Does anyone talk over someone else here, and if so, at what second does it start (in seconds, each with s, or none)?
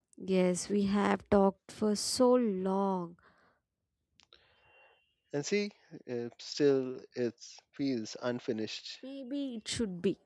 none